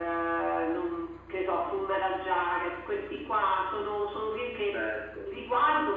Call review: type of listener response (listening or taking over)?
listening